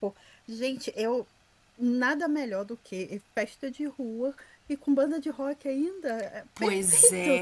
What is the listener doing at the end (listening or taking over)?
taking over